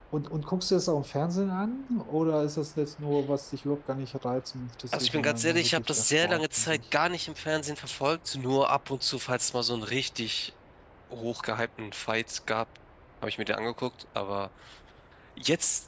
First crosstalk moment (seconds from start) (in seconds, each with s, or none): 4.9 s